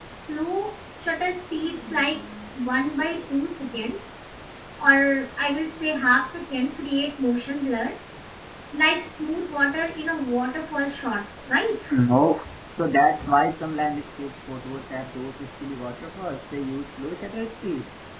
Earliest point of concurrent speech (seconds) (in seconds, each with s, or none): none